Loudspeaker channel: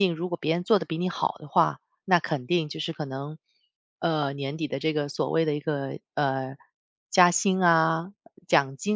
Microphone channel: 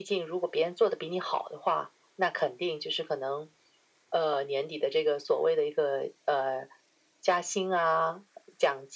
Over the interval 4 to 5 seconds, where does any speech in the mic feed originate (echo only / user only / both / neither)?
echo only